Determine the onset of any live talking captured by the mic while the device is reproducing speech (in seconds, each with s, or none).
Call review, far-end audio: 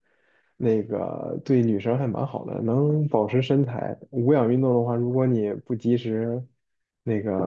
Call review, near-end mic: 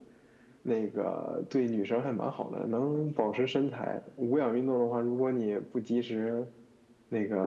none